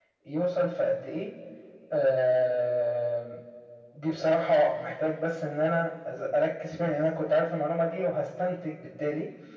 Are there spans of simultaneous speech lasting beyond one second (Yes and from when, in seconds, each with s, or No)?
No